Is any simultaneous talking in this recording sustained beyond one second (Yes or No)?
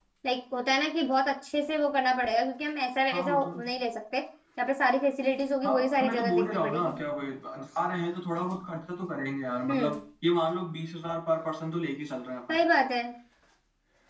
Yes